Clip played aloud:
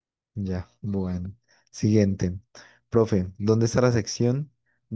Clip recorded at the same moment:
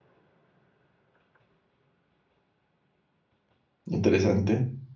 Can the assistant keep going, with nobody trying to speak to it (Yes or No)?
No